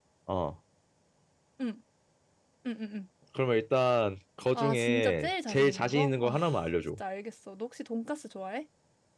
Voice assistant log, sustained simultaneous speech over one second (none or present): present